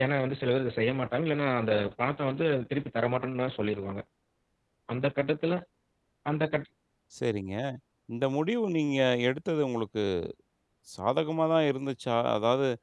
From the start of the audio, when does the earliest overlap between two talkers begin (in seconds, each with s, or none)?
none